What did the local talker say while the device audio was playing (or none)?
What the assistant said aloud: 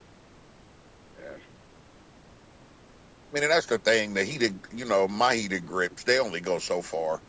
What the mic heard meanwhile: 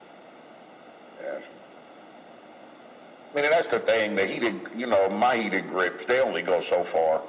none